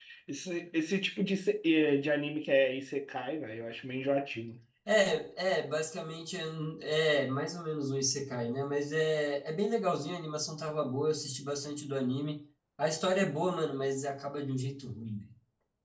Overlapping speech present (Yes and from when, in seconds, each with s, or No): No